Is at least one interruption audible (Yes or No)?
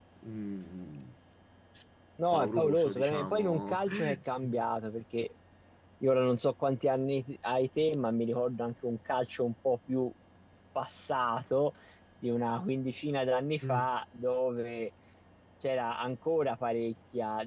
Yes